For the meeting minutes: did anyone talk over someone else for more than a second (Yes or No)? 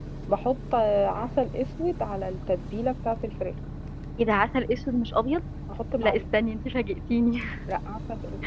No